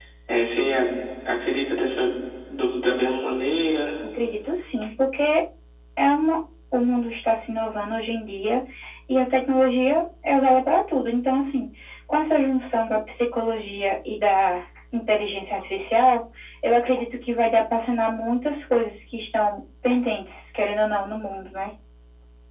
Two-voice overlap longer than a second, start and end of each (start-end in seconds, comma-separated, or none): none